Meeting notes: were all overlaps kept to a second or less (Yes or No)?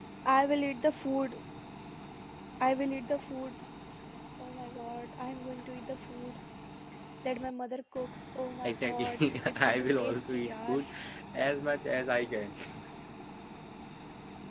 No